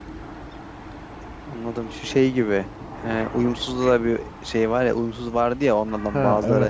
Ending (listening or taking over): listening